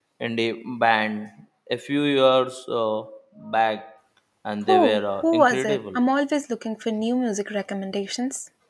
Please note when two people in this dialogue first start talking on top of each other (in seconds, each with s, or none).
4.7 s